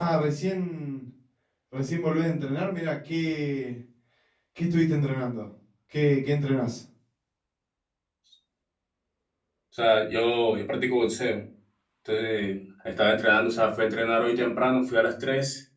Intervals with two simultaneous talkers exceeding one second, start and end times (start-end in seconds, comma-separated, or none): none